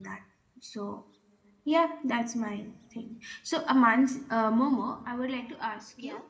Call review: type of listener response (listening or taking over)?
listening